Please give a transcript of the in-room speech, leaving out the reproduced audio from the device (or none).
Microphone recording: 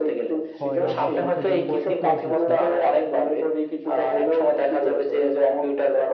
হয় আমরা শিক্ষা জীবনে শিখে এসেছি